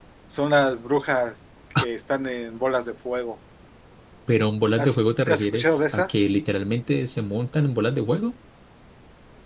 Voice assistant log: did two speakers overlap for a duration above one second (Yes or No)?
Yes